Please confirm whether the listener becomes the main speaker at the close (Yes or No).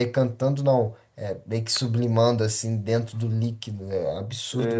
Yes